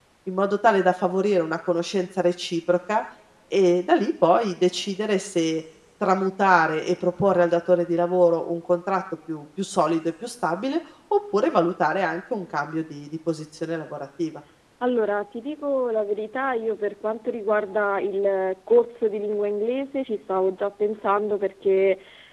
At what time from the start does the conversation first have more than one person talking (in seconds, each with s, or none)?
none